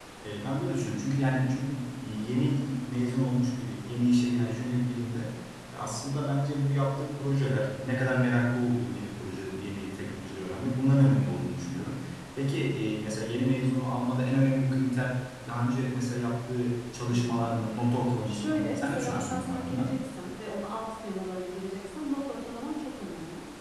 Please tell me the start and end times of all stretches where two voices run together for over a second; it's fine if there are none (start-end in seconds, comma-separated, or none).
18.2-19.9